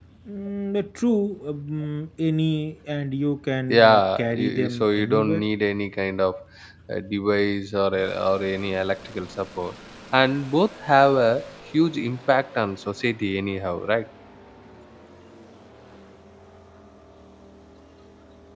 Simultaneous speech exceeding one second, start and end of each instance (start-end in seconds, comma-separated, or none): 3.7-5.5